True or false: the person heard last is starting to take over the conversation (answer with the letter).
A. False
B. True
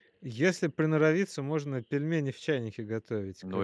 B